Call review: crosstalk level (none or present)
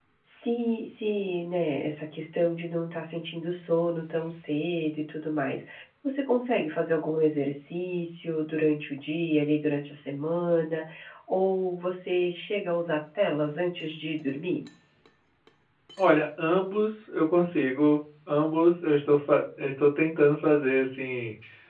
none